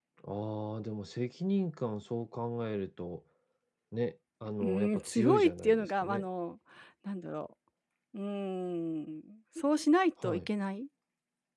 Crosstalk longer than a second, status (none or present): present